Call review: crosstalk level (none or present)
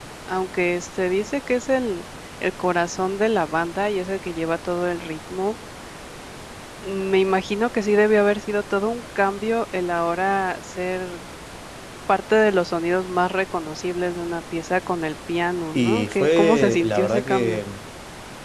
present